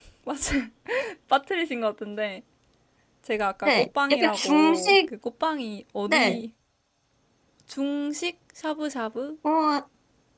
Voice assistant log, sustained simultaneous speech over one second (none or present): present